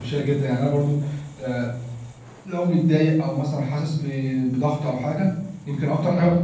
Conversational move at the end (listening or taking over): listening